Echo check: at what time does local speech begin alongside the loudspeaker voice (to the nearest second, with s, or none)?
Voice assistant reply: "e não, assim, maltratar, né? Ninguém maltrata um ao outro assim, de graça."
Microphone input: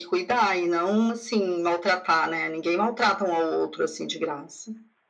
none